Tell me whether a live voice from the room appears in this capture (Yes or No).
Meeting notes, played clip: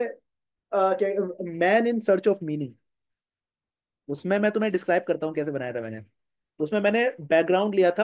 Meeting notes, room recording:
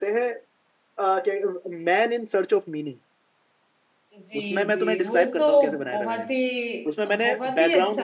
Yes